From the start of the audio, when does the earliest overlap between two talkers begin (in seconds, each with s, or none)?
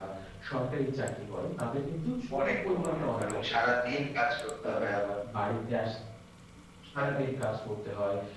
2.4 s